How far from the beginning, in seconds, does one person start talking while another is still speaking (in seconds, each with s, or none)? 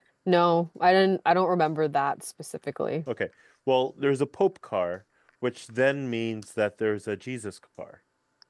none